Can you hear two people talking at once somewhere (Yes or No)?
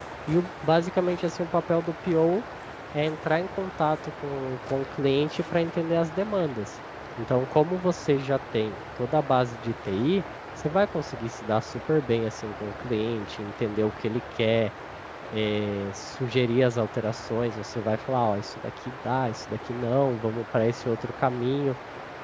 No